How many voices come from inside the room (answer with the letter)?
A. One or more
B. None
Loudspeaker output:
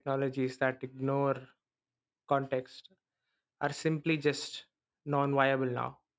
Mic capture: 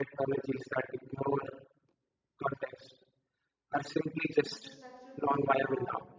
A